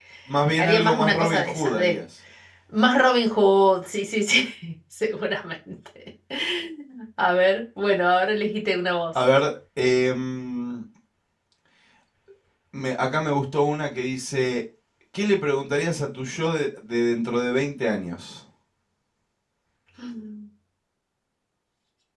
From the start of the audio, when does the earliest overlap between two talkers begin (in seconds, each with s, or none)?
0.6 s